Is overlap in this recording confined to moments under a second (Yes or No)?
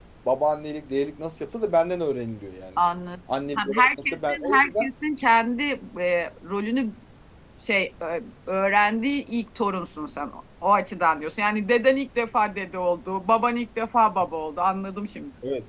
No